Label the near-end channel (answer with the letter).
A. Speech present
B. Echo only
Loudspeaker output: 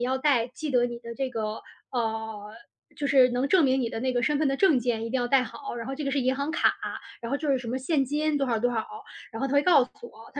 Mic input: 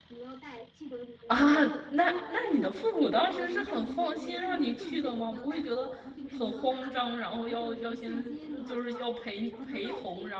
A